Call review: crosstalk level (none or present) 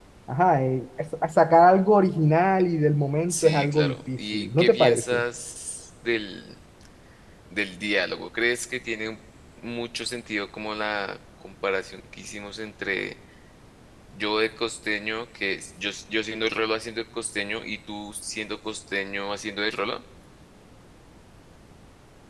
present